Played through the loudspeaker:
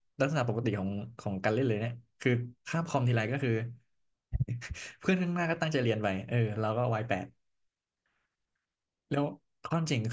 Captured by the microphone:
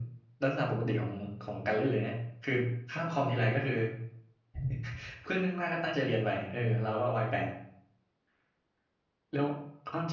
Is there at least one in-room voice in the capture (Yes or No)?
No